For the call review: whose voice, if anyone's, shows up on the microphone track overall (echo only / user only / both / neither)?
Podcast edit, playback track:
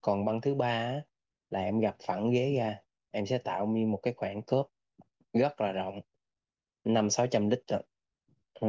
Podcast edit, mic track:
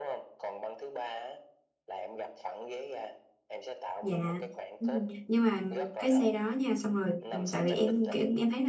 both